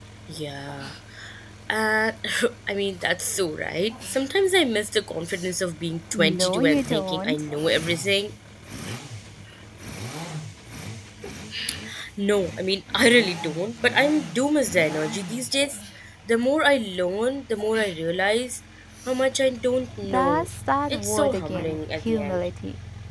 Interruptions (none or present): present